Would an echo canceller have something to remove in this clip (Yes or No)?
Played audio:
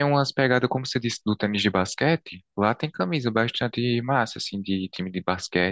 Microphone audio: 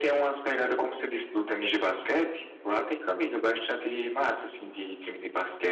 Yes